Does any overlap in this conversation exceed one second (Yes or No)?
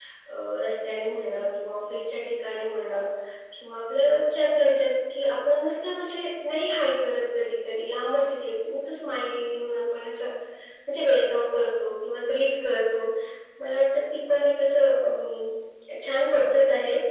No